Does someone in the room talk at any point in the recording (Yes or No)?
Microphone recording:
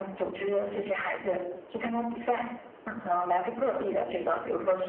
No